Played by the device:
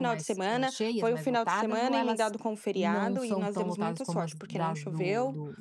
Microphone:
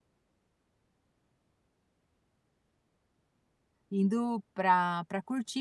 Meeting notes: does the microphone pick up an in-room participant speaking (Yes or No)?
Yes